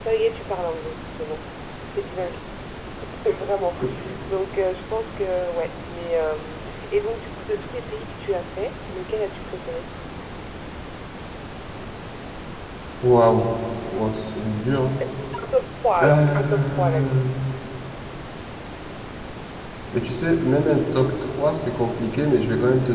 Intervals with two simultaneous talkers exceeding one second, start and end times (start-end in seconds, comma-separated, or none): 16.0-17.2